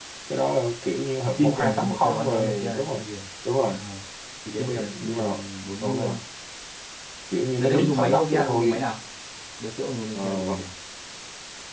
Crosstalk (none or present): present